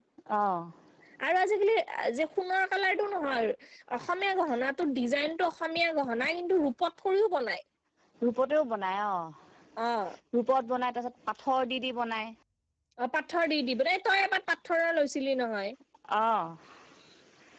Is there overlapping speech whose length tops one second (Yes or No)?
No